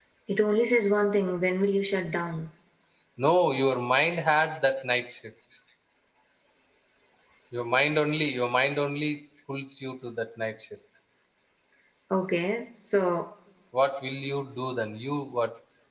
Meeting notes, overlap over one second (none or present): none